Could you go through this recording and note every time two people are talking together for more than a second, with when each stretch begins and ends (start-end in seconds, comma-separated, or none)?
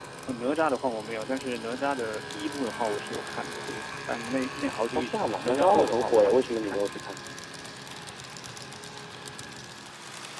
5.0-6.8